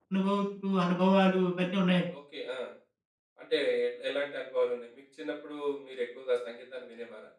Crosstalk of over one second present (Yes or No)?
No